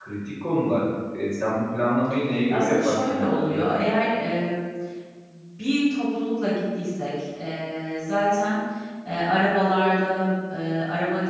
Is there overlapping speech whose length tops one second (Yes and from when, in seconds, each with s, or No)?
Yes, from 2.5 s